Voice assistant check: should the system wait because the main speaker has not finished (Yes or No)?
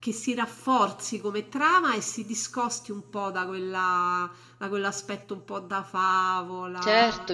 No